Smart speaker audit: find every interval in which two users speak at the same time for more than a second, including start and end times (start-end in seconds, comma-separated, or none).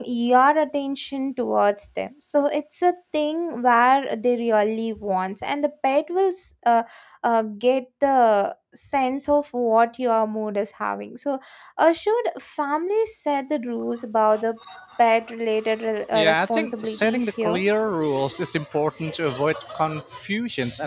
16.1-17.6